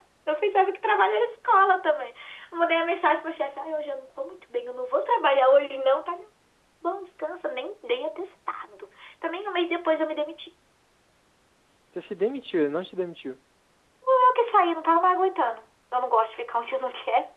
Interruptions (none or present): none